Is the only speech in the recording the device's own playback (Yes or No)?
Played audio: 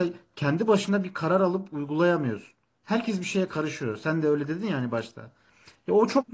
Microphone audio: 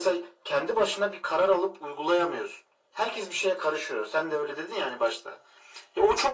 Yes